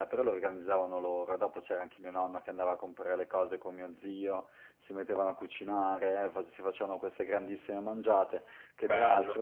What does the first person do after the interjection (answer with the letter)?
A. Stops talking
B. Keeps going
B